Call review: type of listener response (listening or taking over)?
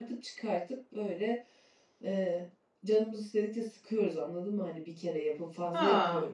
taking over